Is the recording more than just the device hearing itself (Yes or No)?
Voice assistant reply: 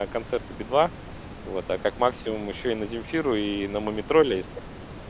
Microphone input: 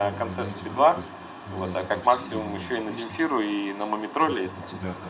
Yes